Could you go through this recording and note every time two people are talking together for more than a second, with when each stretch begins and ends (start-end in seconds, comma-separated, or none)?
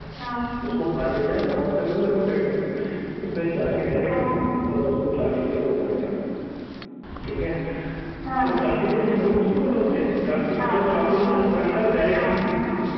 none